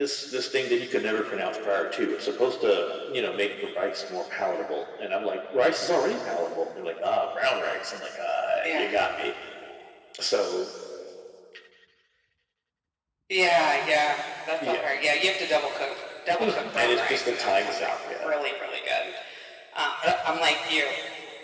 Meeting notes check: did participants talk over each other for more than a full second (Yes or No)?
Yes